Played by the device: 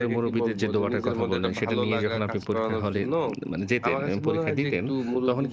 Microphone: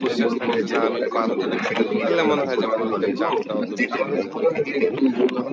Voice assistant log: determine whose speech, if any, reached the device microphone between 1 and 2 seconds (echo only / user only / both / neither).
both